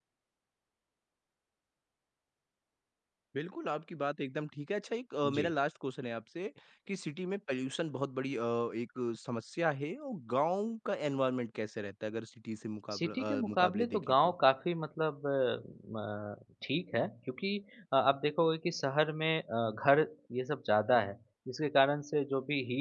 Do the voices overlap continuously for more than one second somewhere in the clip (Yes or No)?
Yes